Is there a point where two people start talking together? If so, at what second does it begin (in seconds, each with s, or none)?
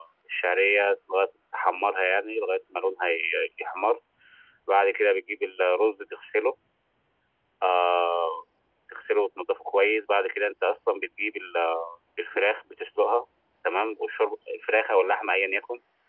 none